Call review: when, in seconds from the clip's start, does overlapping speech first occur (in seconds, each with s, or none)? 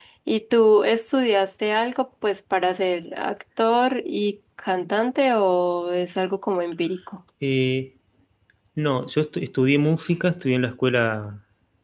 none